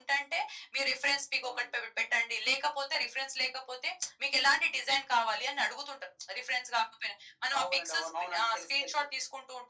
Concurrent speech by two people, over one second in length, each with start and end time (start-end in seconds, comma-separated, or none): 7.6-9.0